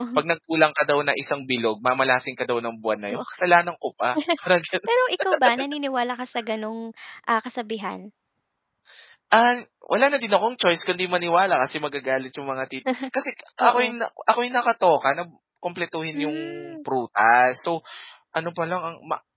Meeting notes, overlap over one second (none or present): none